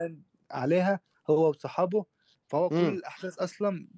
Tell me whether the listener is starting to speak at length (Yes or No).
No